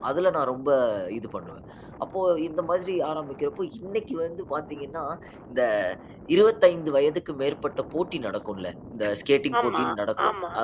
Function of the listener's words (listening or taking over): listening